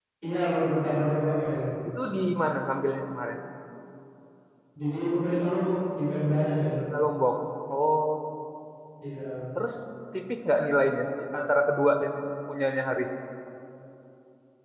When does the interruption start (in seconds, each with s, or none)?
none